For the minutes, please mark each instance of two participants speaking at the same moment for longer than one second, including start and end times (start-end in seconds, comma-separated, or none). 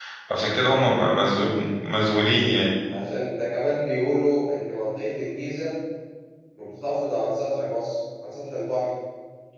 none